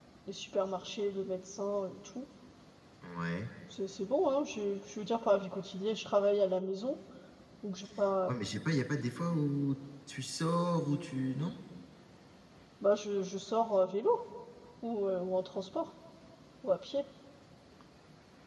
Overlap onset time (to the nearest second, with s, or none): none